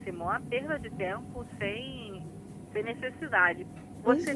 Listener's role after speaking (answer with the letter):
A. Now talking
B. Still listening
B